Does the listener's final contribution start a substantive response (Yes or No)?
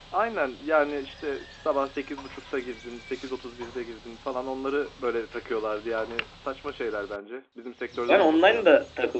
Yes